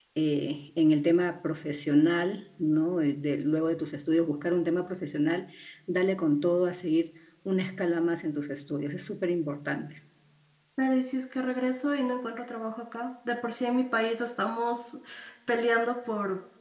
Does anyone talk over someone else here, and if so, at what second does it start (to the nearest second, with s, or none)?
none